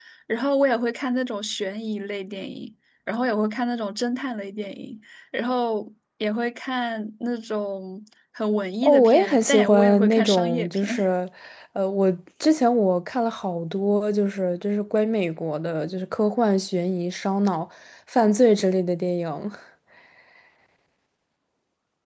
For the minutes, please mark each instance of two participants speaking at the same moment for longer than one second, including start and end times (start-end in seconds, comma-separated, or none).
8.8-10.9